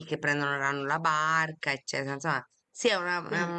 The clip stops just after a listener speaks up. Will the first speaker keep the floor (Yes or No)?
Yes